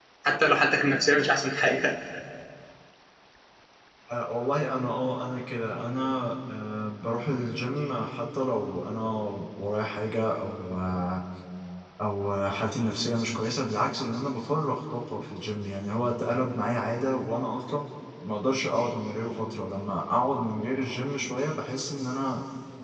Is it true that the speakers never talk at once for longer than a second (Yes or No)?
Yes